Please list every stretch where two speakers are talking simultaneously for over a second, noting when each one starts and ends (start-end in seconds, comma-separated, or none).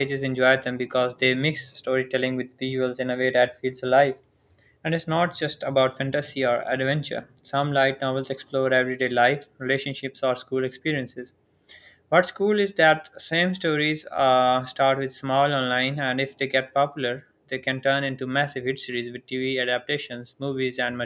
none